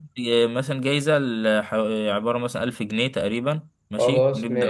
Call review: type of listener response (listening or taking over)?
listening